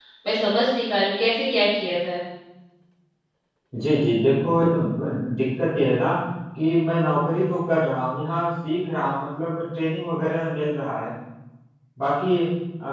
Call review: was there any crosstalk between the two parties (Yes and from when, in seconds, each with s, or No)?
No